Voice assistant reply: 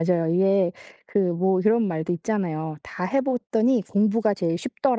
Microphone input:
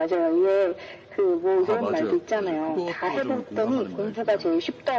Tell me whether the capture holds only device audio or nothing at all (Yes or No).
No